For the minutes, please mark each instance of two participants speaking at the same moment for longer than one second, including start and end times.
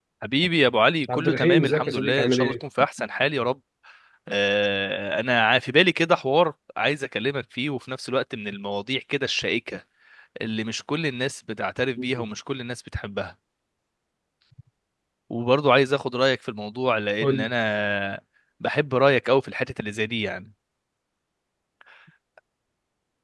1.1-2.5

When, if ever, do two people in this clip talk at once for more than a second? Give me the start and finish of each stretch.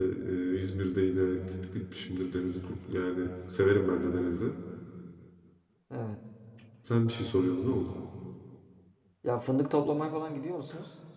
none

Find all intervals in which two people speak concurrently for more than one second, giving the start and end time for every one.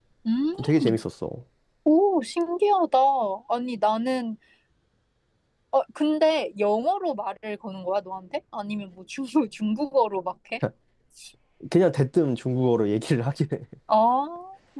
none

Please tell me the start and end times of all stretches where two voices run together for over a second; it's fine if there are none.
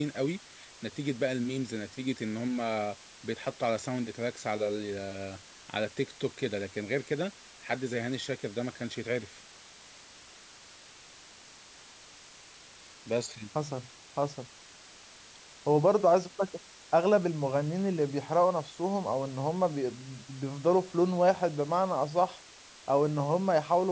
none

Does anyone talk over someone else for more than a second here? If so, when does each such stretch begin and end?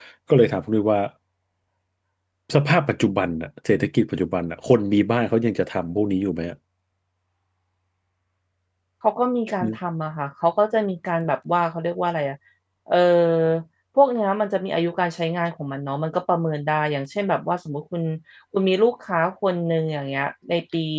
none

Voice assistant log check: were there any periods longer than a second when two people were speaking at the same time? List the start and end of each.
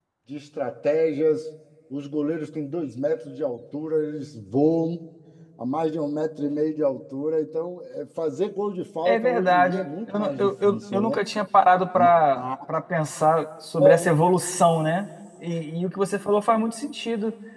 9.1-11.2

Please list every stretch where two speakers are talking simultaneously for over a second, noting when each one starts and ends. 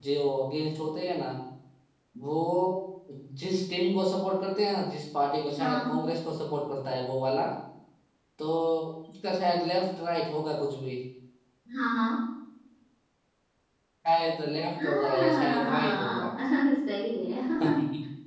14.8-16.3

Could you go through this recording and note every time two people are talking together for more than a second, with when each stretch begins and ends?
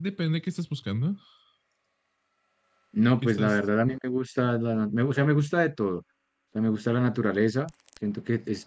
none

